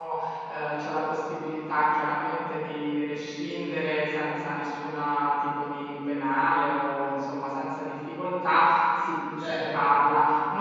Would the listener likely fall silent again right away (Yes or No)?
Yes